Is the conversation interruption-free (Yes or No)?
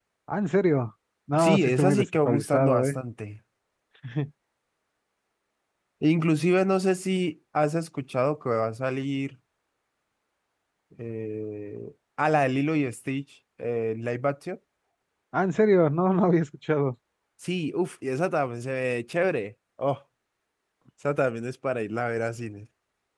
No